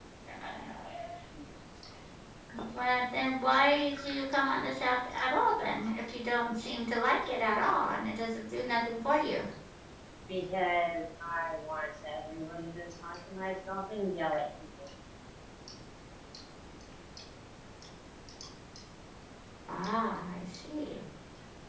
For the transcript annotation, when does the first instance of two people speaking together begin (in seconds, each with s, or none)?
none